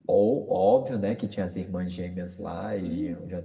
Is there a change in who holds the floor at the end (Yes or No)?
Yes